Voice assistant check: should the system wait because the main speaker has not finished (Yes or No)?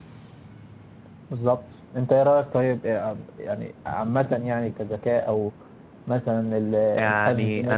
No